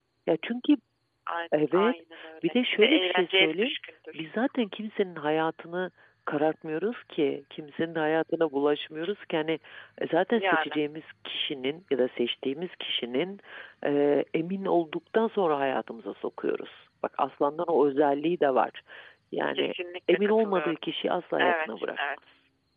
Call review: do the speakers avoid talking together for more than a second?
No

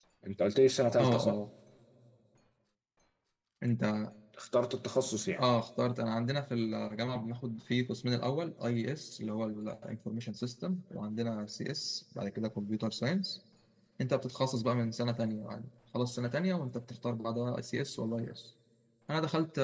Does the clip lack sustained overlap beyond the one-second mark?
Yes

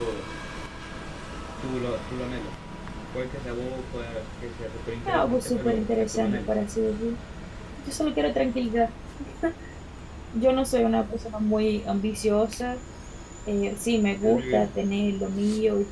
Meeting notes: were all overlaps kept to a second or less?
No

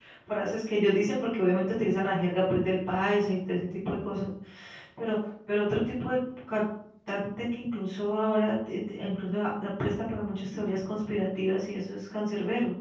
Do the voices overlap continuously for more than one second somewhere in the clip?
No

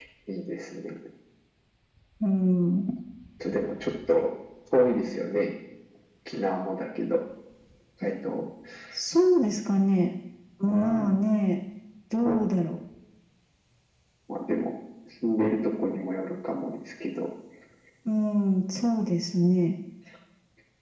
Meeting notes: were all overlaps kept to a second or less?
Yes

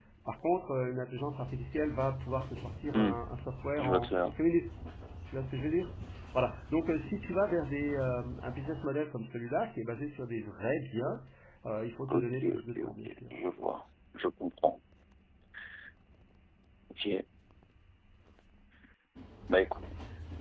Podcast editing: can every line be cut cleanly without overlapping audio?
No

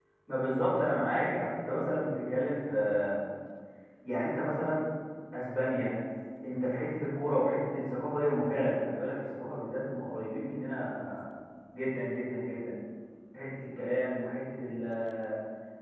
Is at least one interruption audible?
No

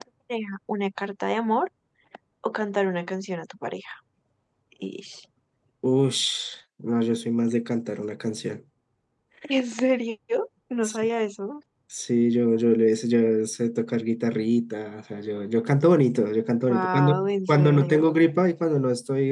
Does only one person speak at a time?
No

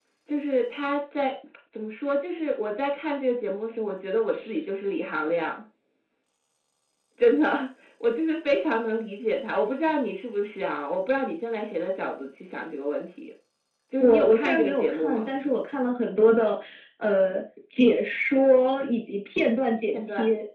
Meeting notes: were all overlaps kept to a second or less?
No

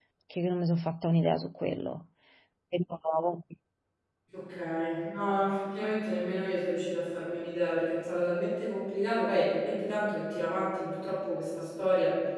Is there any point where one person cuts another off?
No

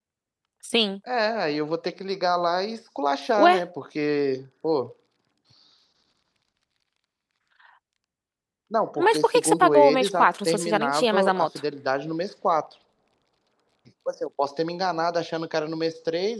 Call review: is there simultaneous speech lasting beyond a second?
Yes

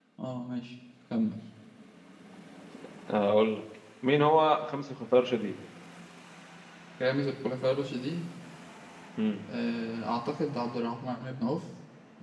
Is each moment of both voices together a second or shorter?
Yes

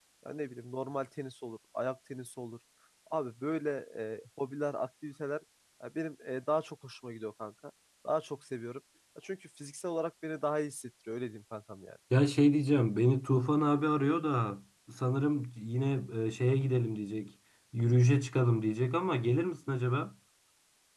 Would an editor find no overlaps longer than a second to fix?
Yes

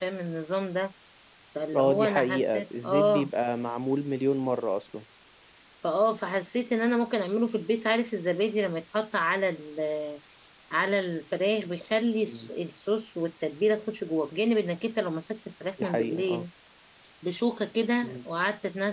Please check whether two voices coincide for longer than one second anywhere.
Yes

